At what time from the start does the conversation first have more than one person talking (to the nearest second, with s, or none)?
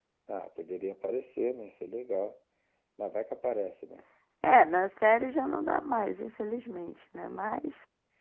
none